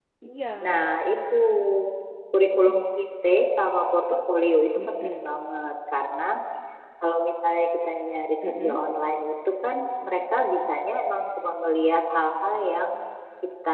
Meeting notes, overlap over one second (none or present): none